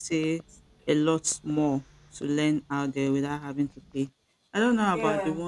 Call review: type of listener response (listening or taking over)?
listening